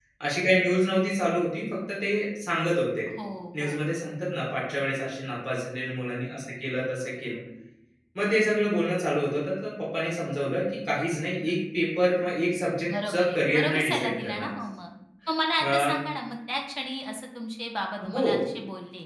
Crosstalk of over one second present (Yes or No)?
Yes